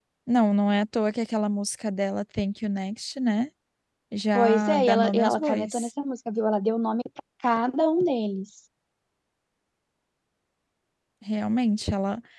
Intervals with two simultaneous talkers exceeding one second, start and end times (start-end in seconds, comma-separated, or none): 4.3-5.9